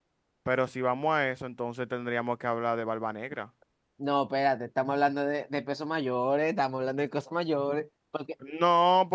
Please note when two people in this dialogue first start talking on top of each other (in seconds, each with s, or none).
none